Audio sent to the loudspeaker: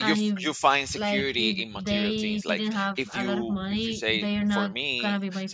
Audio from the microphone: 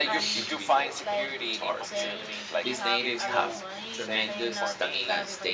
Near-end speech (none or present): present